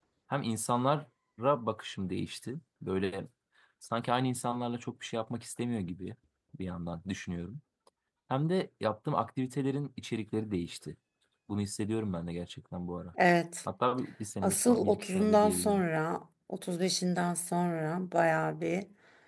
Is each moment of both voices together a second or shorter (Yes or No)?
No